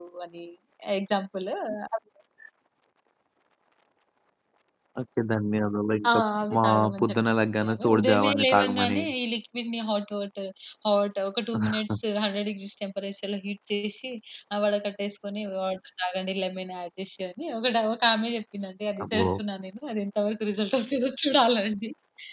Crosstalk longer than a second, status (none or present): present